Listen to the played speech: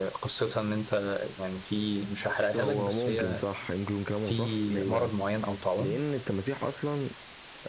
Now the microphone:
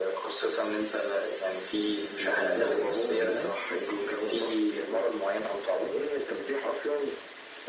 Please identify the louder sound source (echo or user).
echo